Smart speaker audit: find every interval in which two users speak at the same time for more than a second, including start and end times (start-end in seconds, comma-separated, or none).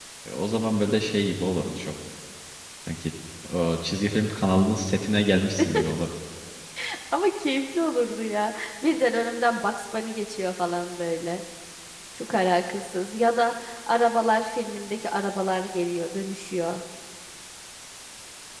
none